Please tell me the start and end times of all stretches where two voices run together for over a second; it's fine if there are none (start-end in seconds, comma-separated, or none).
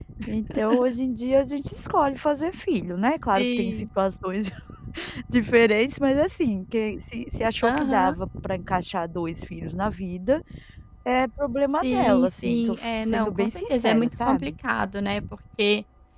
11.8-14.5